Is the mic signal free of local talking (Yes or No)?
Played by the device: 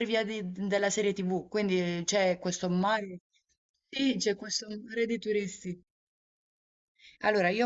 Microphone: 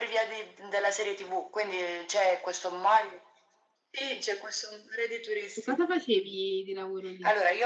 No